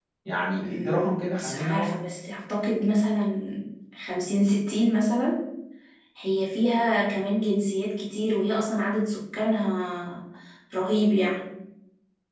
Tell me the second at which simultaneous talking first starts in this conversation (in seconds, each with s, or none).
0.6 s